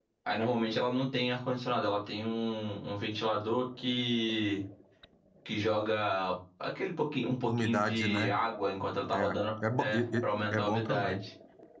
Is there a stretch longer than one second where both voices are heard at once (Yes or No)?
Yes